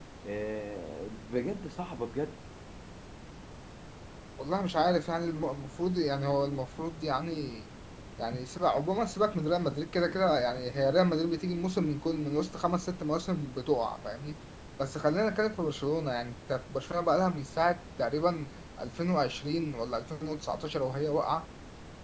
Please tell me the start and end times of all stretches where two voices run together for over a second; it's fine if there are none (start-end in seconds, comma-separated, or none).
none